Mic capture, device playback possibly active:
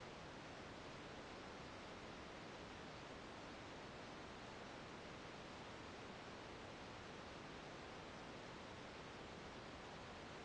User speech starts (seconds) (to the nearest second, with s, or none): none